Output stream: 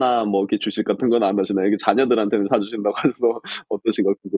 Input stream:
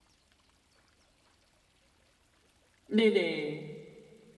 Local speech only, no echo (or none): 네네.